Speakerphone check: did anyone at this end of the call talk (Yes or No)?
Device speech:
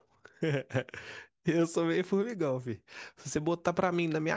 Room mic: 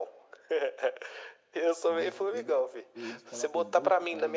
Yes